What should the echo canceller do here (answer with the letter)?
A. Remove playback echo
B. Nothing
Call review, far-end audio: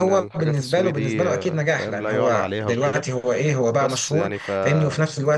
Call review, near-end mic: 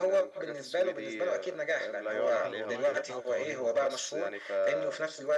A